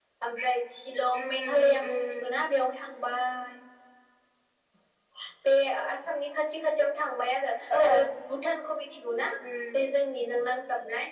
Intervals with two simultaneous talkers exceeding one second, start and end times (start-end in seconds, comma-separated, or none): 1.1-2.4